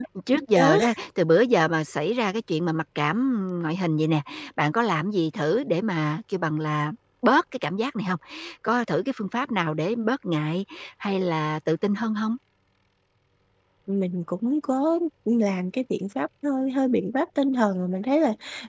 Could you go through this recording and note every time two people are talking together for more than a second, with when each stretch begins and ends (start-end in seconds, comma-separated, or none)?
none